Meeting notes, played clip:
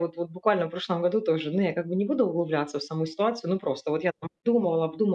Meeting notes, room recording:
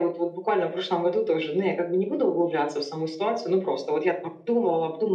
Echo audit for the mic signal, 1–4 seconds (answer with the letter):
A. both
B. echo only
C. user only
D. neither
B